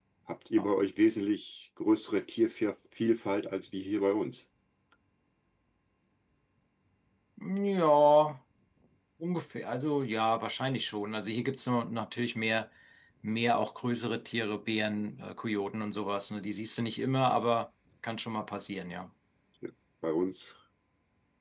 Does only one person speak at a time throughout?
Yes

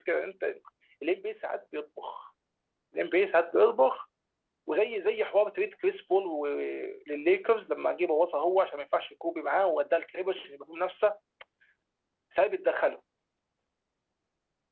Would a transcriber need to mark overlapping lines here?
No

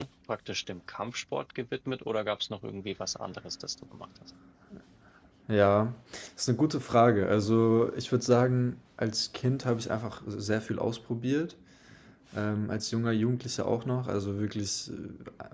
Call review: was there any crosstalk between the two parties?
No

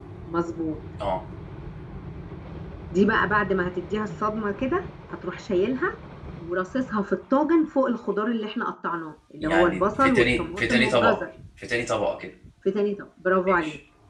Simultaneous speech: Yes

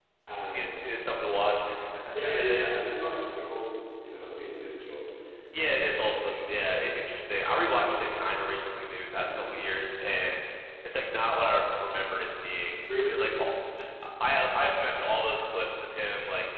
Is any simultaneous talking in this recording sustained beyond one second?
No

